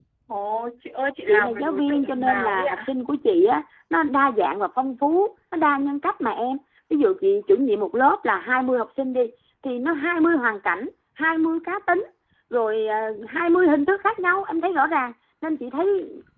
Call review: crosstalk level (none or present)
present